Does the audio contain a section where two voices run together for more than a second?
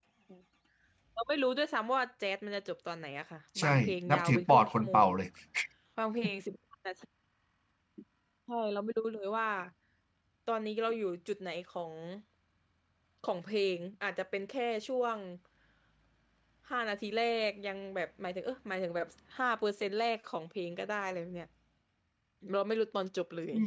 Yes, from 3.6 s

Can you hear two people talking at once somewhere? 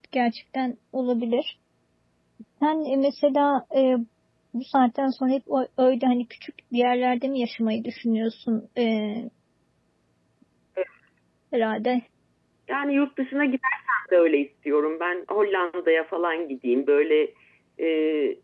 No

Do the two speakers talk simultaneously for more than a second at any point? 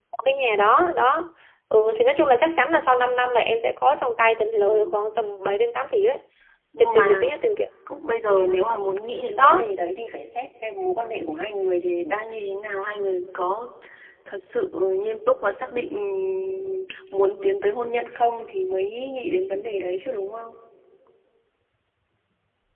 No

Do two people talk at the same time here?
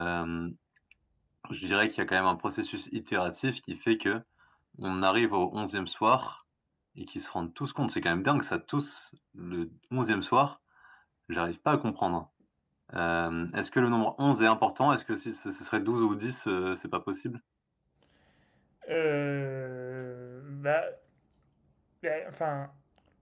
No

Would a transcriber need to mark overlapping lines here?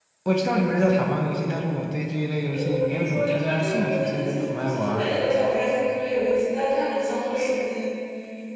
Yes, from 2.5 s

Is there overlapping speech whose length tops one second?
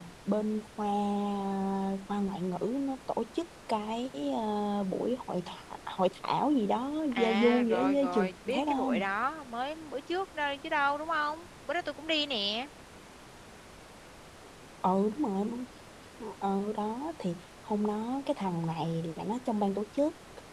Yes, from 7.1 s

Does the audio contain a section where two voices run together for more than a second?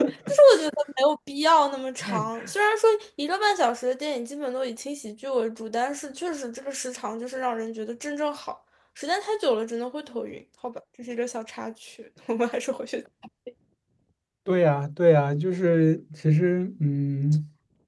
No

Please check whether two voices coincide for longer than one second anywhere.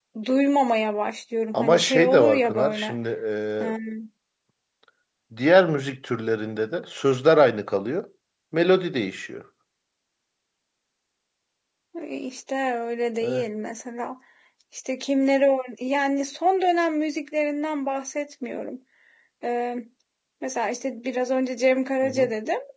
Yes, from 1.5 s

